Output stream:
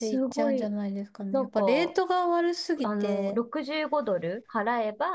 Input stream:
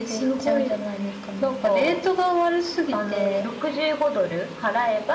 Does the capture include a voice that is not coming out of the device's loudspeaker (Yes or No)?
No